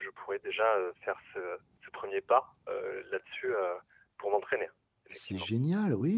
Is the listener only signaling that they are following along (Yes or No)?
No